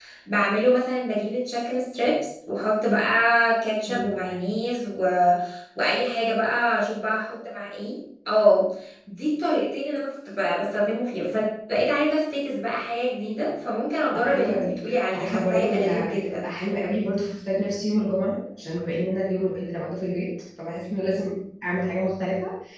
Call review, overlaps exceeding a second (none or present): present